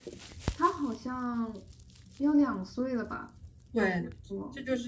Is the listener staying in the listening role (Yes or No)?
No